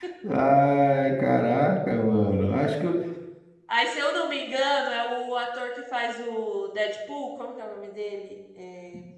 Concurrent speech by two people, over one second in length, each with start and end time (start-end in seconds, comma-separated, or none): none